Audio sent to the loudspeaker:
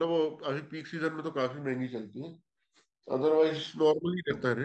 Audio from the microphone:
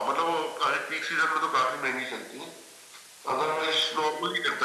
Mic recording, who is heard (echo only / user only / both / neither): echo only